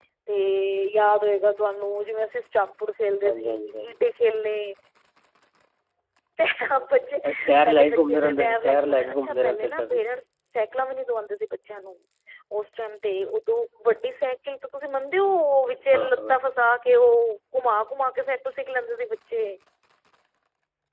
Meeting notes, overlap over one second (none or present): present